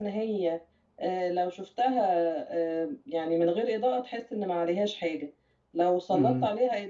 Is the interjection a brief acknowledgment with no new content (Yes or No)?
Yes